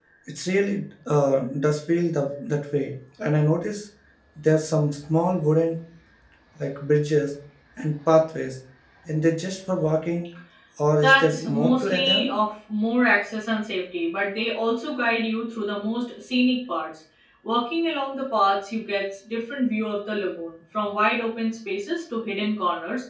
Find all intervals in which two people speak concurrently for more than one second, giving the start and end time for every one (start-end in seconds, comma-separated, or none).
11.0-12.4